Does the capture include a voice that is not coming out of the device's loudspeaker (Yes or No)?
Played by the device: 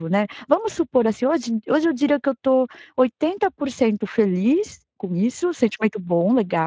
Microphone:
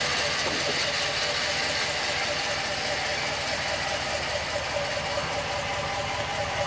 No